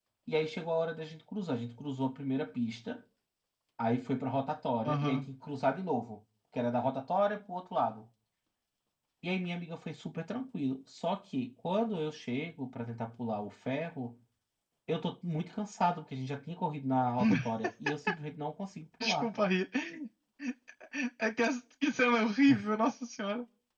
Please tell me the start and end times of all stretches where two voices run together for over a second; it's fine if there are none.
none

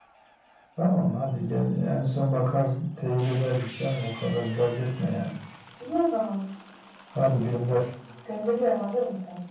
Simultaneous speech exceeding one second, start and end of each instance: none

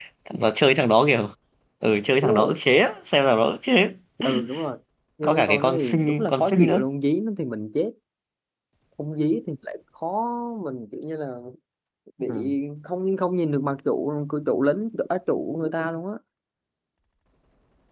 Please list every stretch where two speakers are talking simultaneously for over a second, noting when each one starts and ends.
5.2-6.8

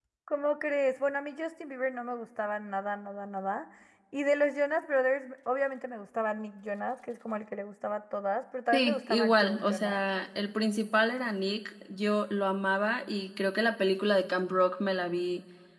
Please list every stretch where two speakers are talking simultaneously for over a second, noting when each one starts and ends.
8.7-10.0

